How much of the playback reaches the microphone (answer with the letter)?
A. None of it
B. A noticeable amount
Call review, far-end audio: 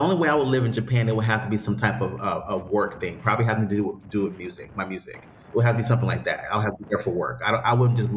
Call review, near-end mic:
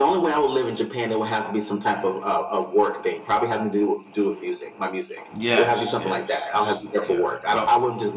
B